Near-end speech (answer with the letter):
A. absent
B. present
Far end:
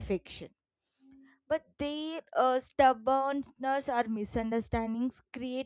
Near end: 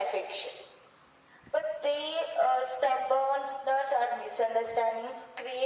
A